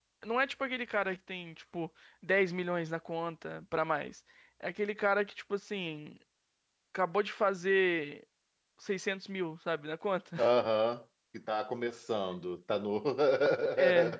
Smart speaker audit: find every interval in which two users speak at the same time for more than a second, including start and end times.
none

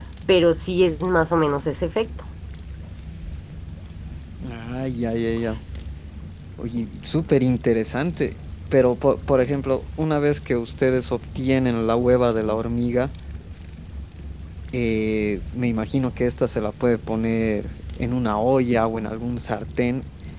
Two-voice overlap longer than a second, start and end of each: none

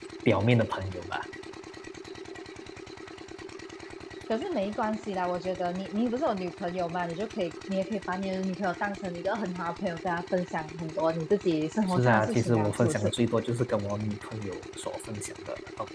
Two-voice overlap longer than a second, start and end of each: 11.9-13.1

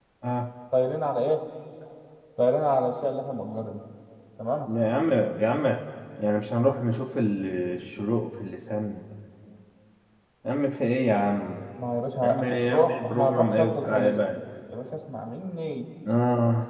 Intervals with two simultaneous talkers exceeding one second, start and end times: 12.2-14.2

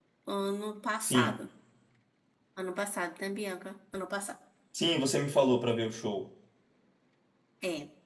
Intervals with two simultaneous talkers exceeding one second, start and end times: none

